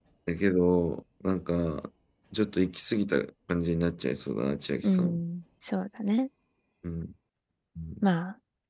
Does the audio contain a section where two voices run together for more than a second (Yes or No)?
No